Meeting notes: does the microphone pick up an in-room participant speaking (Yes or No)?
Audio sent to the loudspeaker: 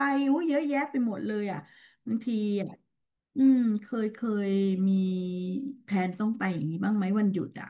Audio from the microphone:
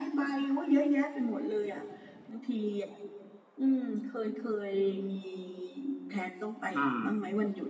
Yes